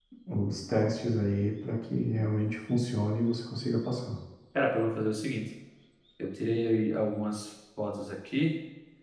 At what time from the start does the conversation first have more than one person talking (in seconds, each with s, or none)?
none